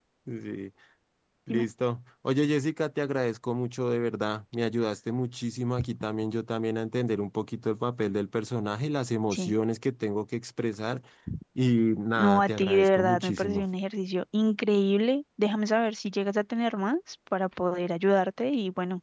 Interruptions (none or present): present